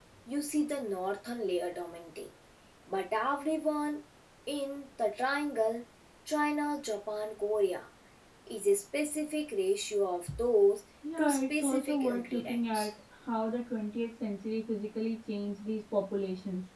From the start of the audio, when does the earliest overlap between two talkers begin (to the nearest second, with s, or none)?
11 s